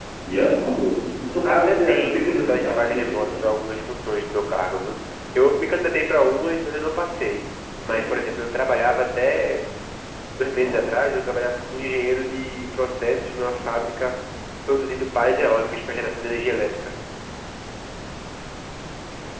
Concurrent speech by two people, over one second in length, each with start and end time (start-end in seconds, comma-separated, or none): 1.4-3.5